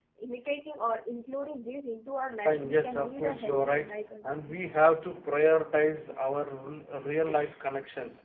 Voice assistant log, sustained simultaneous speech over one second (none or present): present